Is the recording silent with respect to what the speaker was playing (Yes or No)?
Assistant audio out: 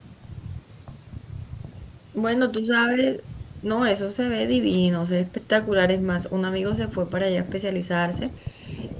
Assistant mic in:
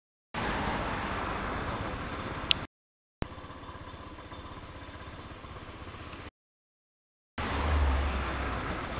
Yes